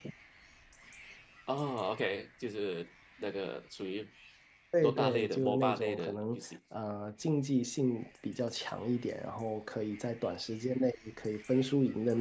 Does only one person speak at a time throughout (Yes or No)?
No